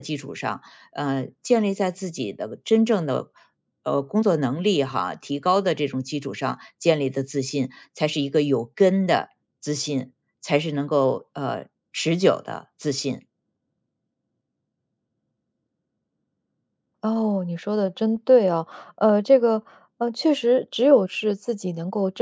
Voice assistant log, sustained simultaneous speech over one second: none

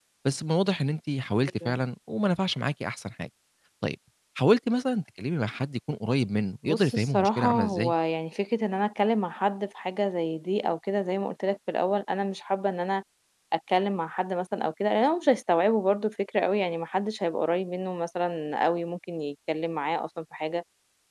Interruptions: present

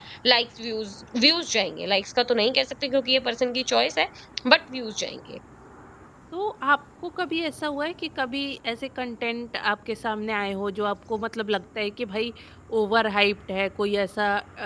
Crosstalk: none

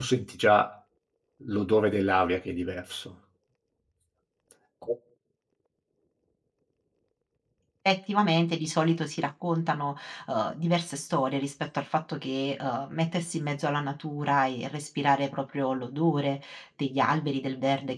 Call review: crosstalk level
none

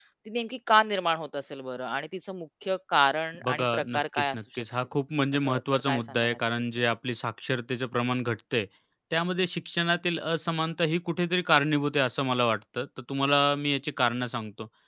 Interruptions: present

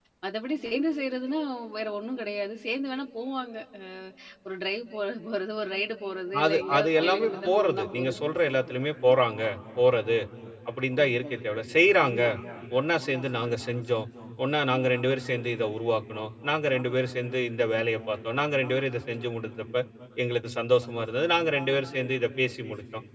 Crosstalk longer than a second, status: present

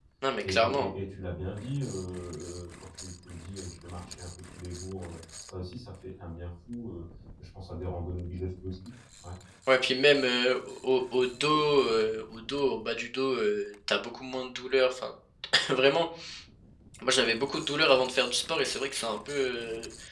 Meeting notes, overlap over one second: none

